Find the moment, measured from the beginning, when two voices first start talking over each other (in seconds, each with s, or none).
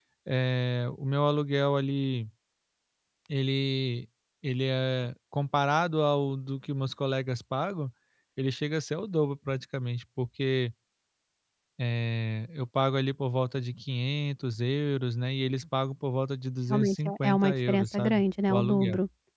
16.7 s